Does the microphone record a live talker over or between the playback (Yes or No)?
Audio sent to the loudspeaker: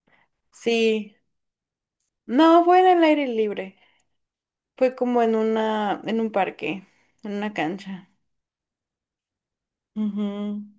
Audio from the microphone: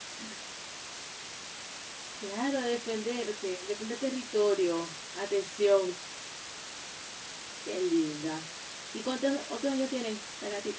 Yes